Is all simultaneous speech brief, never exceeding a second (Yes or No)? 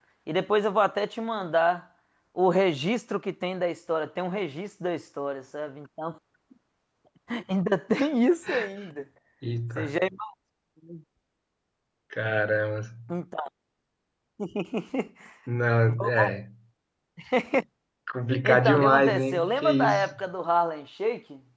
No